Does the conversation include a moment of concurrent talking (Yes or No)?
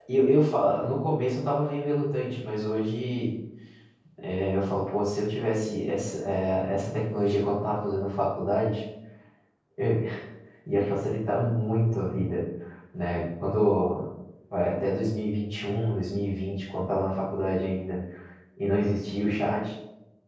No